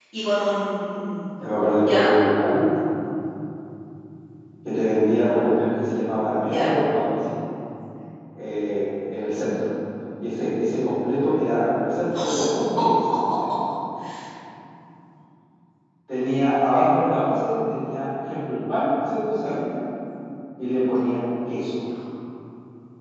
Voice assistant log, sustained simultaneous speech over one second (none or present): none